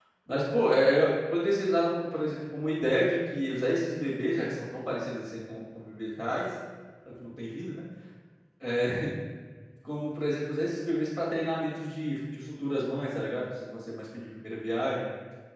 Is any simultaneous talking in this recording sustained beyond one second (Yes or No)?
No